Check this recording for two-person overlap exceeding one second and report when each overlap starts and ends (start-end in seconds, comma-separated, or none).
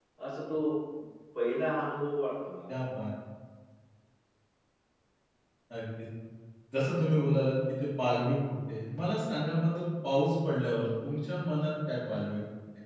none